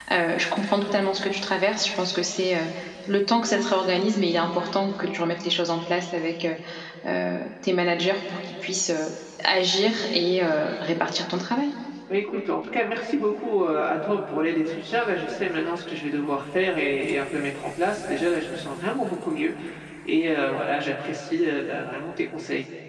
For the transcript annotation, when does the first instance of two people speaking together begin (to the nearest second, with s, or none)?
none